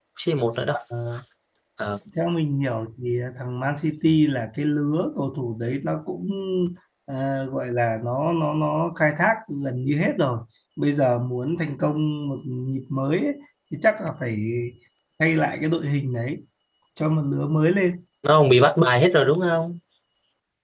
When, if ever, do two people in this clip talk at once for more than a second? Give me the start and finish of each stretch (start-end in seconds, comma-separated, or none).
none